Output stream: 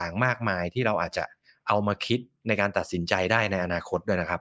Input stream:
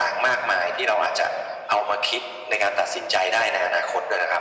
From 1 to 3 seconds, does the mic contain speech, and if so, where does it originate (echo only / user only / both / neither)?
echo only